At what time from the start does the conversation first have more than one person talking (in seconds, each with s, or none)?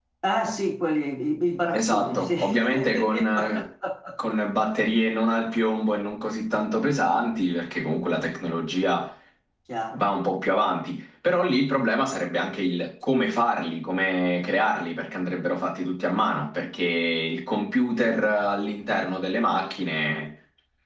1.7 s